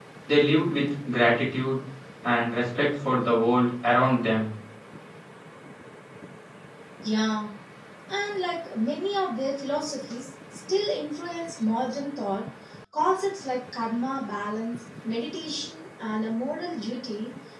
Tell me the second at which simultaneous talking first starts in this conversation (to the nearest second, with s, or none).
none